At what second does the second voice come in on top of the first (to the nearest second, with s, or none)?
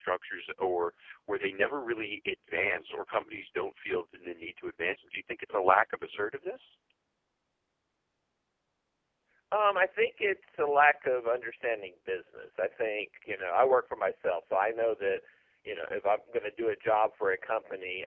none